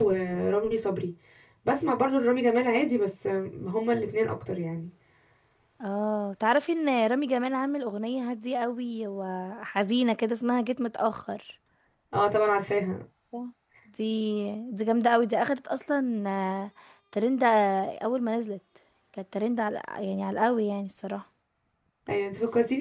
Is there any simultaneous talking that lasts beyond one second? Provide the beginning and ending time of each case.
none

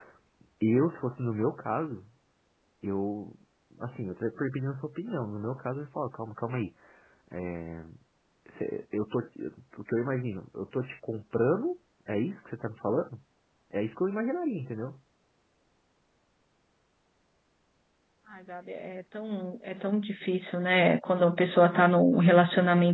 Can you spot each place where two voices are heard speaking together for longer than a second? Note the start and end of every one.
none

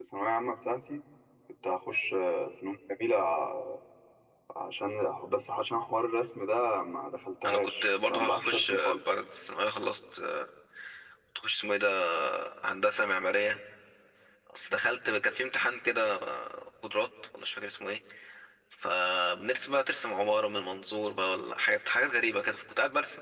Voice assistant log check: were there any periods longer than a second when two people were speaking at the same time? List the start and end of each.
7.5-9.0

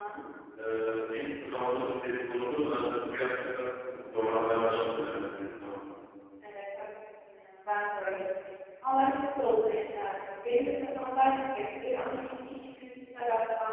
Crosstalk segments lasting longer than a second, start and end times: none

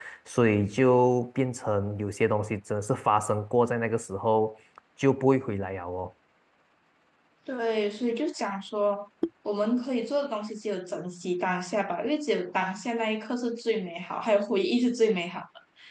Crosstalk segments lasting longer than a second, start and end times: none

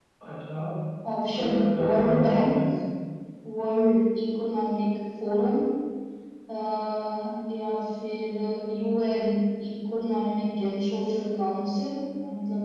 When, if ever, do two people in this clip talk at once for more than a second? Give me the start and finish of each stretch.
1.3-2.5

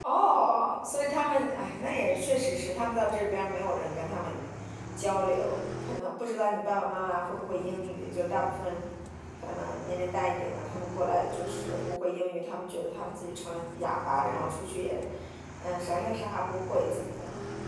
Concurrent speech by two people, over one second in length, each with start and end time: none

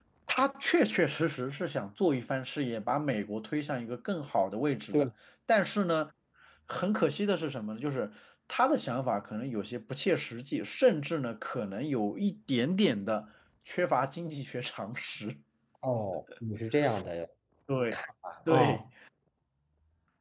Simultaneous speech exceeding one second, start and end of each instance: none

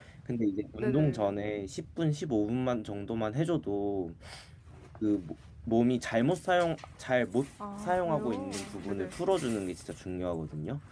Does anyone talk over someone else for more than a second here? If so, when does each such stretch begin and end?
7.8-9.1

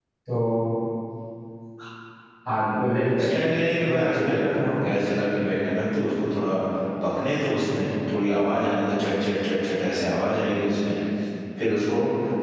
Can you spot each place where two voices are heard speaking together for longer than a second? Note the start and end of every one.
3.2-4.4

